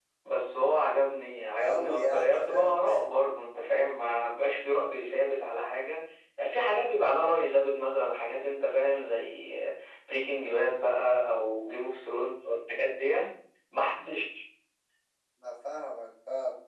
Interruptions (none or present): present